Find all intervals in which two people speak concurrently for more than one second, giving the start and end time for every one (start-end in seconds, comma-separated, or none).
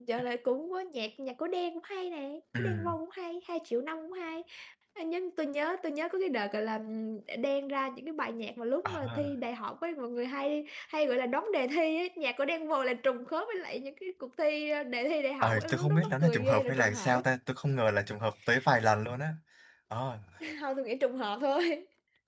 15.4-17.2